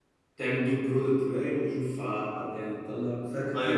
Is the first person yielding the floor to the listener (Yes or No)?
Yes